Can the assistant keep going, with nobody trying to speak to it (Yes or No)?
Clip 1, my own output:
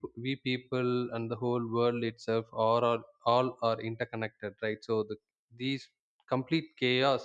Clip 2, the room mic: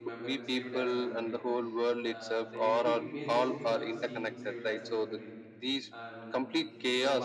No